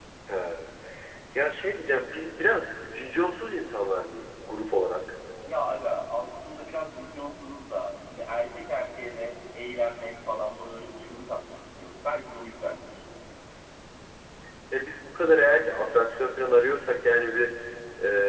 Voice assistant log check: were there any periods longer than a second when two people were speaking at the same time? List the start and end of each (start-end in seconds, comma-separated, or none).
none